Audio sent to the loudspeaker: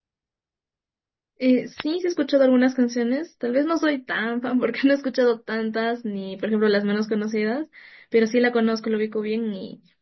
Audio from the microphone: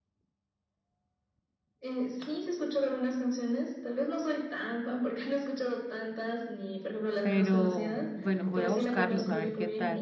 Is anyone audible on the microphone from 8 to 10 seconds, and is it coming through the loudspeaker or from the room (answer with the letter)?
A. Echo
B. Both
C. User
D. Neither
B